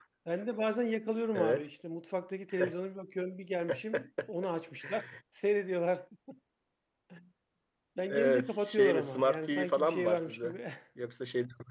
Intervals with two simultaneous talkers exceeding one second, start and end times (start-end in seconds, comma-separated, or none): 8.1-10.6